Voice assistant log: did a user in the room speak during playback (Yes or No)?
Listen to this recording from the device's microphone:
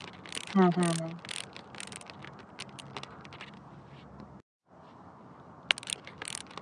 Yes